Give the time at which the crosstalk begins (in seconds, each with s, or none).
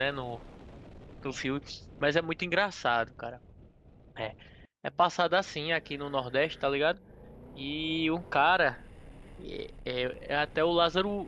none